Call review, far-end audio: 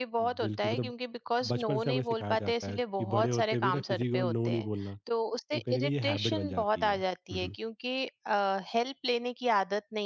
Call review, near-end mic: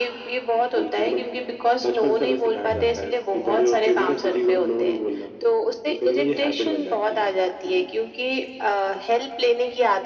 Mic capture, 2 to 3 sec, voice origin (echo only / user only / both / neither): both